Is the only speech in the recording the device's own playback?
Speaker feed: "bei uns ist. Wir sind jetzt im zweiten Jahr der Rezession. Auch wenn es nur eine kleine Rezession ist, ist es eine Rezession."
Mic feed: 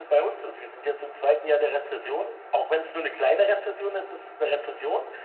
Yes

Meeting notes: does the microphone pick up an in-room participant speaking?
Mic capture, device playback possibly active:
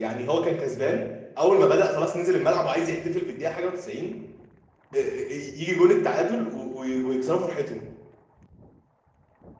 Yes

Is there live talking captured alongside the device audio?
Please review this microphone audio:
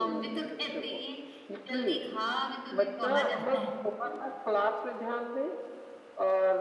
Yes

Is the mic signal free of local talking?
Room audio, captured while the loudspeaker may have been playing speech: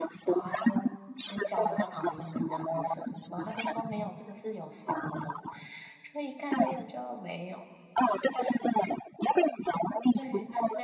No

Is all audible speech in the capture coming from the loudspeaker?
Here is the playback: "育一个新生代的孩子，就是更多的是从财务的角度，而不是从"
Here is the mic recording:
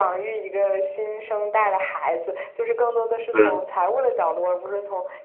No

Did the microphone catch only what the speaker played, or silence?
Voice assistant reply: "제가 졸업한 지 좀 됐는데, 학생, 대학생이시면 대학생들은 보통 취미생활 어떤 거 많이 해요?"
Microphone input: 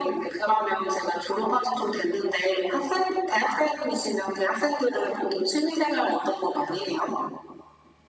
Yes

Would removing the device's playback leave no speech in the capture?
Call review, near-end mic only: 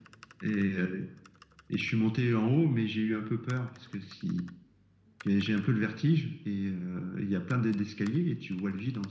Yes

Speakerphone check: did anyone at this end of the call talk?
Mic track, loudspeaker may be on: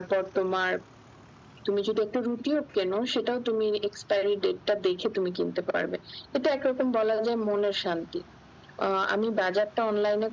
No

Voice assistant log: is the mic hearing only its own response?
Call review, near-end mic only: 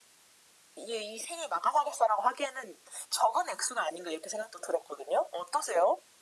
Yes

